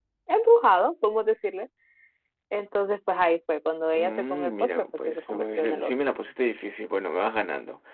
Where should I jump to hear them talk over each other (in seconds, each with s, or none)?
3.9 s